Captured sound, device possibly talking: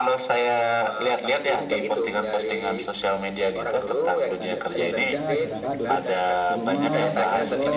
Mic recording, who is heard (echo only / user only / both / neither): both